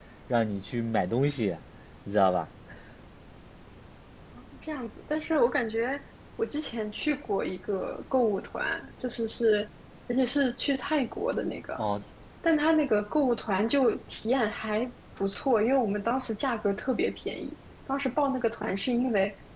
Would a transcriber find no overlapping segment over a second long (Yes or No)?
Yes